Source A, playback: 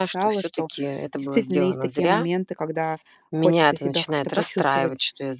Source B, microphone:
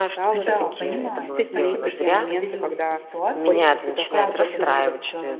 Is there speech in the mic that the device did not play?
Yes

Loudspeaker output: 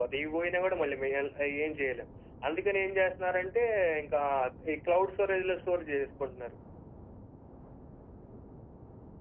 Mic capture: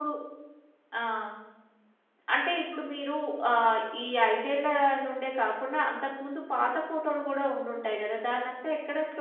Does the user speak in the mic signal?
Yes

